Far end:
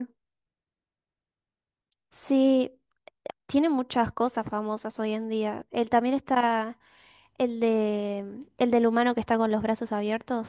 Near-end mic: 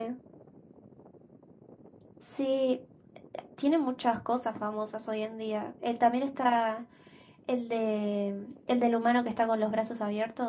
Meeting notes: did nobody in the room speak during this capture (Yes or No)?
Yes